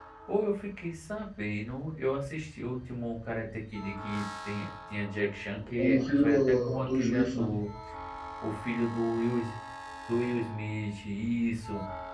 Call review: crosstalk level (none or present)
present